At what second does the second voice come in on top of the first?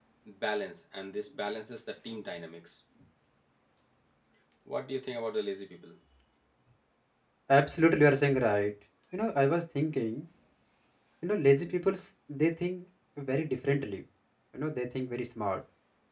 none

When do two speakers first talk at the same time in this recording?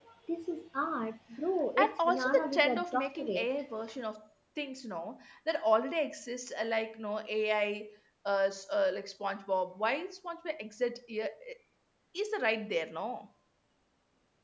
1.8 s

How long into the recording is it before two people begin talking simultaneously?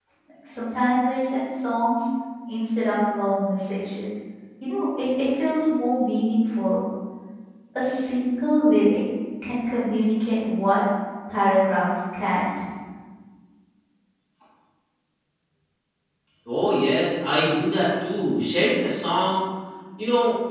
none

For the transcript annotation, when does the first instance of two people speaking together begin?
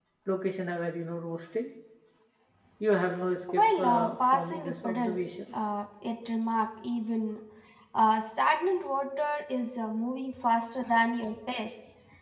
3.5 s

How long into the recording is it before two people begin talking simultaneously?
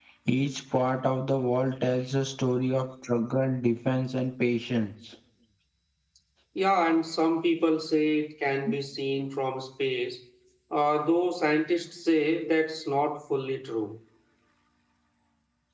none

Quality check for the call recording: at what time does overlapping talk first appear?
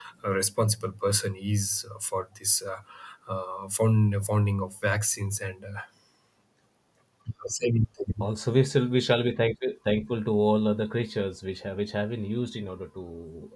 none

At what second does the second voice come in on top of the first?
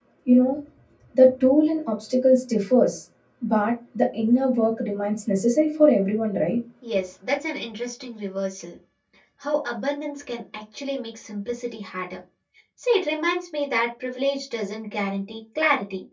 none

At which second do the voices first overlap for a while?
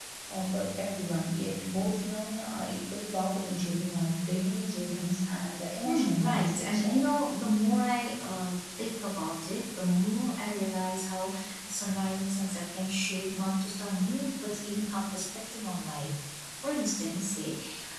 5.8 s

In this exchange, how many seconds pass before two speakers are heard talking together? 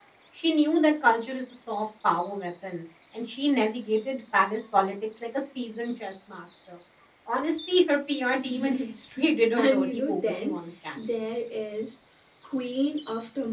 8.3 s

